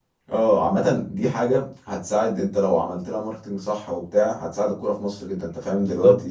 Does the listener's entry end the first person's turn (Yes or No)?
Yes